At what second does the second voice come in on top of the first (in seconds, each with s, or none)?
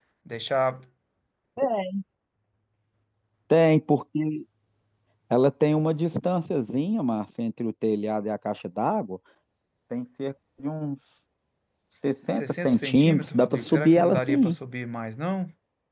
12.3 s